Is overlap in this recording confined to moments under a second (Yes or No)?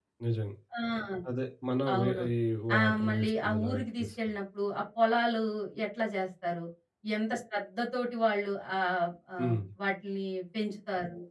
No